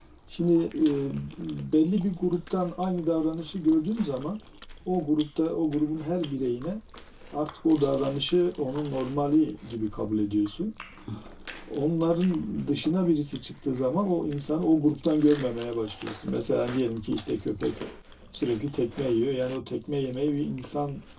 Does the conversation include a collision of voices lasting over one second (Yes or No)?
No